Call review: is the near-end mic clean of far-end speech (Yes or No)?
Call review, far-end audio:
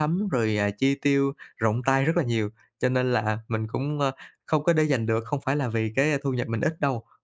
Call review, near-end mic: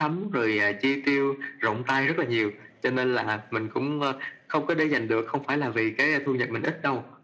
No